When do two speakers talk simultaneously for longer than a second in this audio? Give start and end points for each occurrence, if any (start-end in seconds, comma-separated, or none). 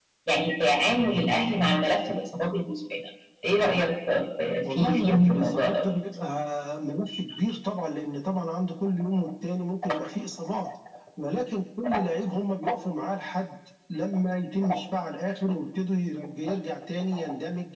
4.6-5.9